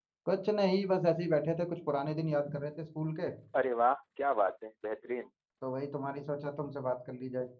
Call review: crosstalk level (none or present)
none